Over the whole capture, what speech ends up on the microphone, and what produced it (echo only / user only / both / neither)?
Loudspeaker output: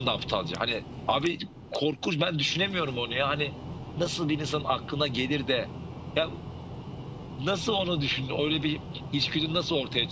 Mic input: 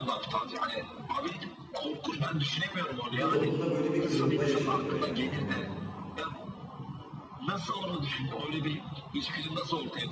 both